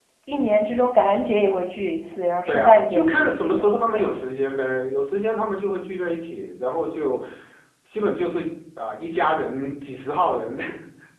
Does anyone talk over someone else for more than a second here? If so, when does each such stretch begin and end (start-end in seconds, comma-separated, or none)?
2.5-4.1